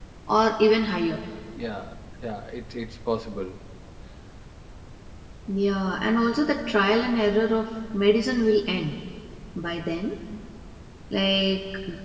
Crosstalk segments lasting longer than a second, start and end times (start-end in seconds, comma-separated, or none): none